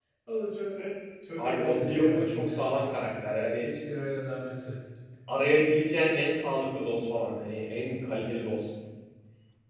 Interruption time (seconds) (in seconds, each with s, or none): 1.4 s